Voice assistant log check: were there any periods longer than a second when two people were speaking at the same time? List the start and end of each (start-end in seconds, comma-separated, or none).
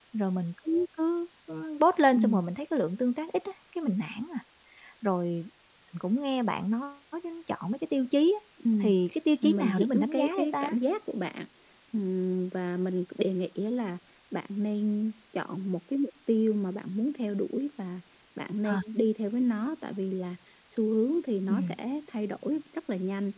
9.4-10.7